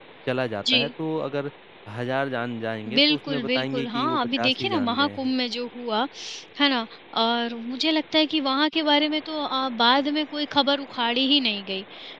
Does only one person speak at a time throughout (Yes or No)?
No